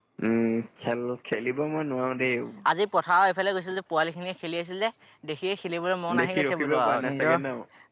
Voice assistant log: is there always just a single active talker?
No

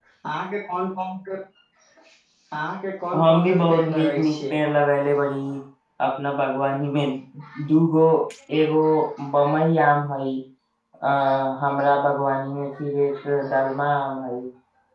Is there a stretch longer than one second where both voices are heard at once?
Yes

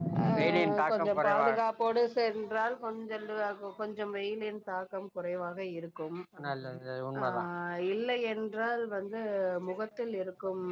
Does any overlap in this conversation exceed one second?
Yes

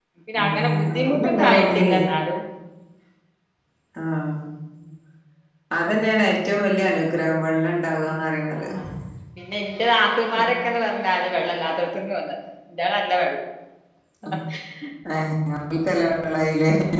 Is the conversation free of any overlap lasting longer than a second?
No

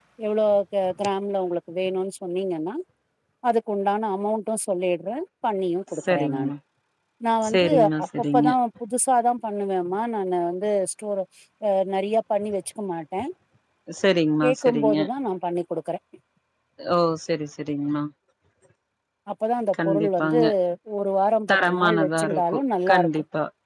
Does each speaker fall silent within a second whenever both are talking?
No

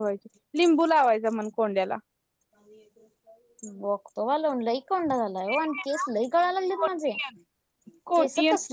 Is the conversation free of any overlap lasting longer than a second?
Yes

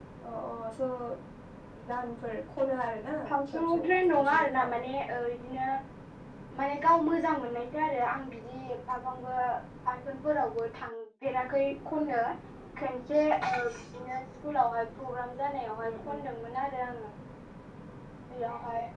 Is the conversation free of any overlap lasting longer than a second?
No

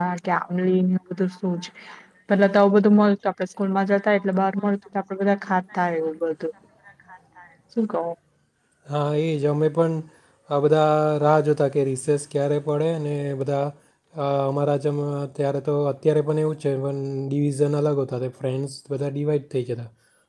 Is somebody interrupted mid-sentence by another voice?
No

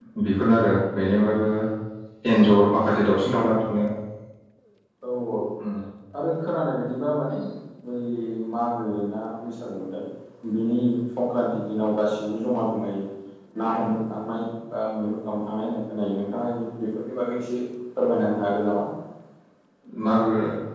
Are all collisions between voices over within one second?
Yes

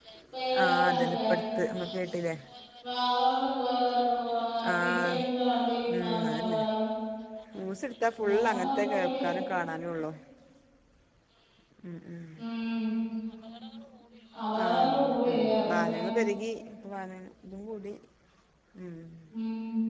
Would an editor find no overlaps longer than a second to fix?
No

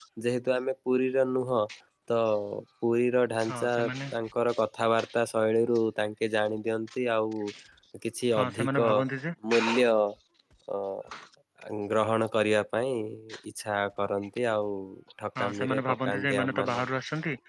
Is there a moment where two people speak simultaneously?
Yes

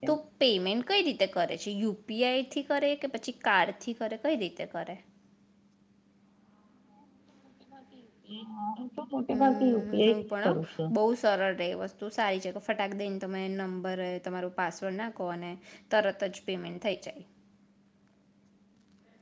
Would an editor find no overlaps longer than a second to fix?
No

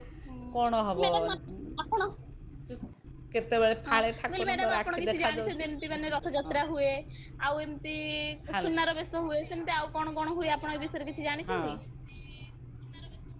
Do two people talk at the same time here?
Yes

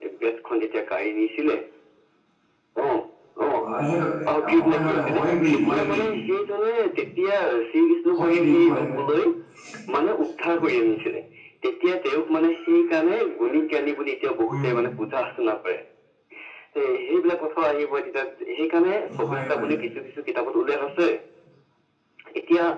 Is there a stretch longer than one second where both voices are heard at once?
Yes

